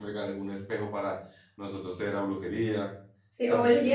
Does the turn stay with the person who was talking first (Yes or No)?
No